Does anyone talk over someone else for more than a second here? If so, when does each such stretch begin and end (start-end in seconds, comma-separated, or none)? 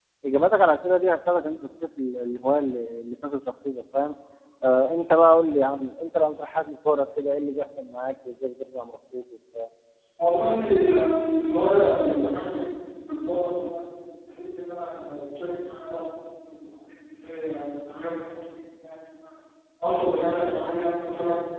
none